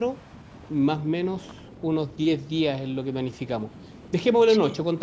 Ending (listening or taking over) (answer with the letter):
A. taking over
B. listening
B